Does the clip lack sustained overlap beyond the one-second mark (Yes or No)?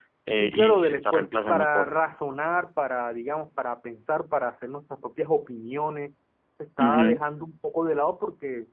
No